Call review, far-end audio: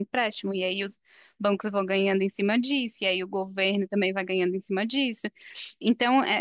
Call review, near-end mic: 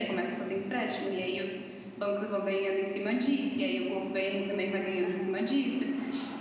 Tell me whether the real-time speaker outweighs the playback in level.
No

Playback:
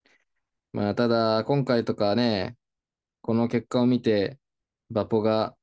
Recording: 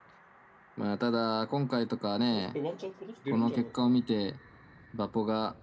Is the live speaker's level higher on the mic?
No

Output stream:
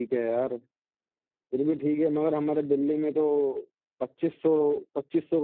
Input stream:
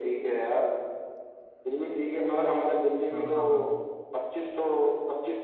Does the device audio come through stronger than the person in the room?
Yes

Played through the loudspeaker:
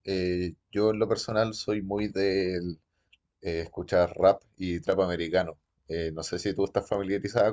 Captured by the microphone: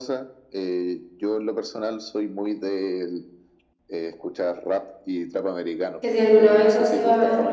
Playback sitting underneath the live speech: Yes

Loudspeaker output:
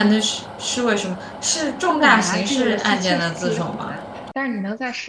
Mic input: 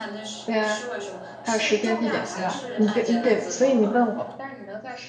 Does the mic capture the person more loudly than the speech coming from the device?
Yes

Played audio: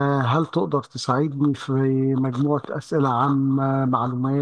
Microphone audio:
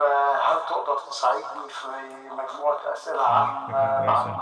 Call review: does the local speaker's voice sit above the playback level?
No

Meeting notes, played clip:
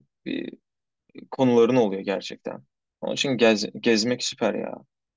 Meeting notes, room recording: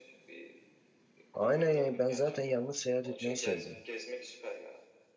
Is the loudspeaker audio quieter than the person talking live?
Yes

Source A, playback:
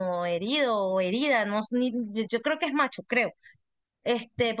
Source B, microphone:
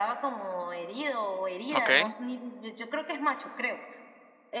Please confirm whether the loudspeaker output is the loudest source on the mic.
No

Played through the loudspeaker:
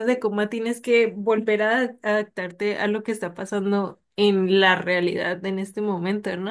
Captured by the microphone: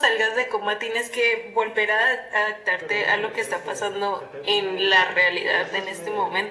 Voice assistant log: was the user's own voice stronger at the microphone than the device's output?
No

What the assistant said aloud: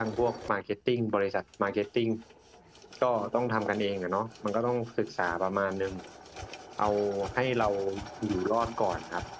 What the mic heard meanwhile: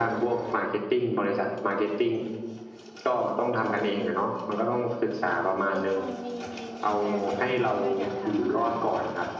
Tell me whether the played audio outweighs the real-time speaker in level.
Yes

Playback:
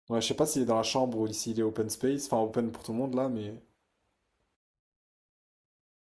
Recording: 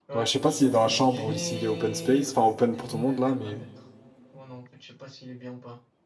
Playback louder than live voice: Yes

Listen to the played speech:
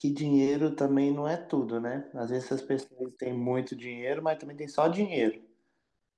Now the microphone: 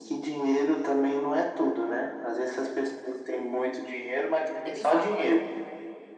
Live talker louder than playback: No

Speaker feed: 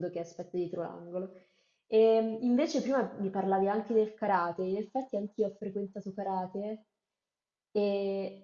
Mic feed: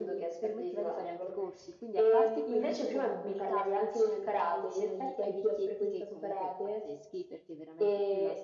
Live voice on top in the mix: No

